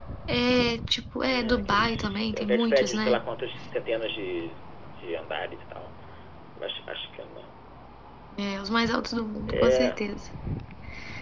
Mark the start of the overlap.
1.3 s

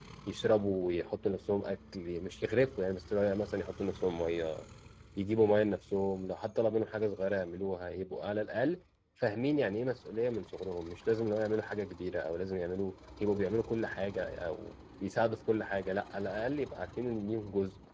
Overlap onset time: none

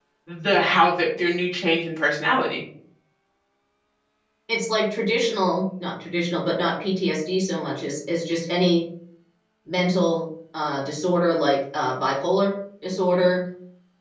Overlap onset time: none

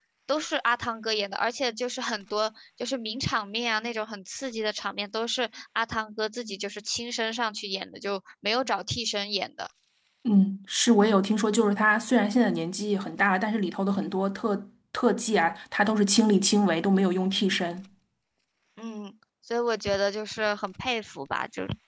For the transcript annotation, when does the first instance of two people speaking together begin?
none

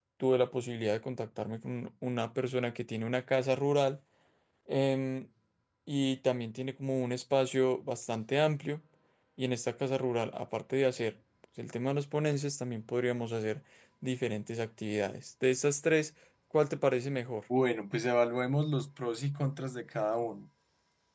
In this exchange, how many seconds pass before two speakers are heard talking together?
none

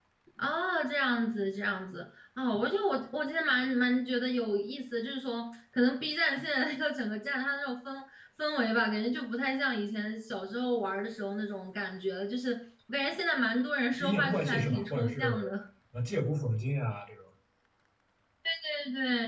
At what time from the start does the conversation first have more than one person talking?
14.0 s

